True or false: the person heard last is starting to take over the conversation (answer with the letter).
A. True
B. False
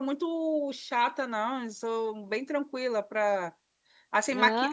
B